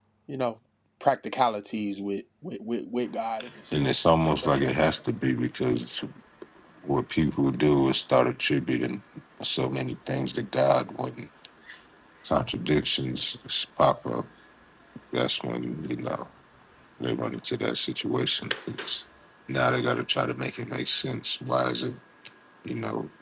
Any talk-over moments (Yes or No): Yes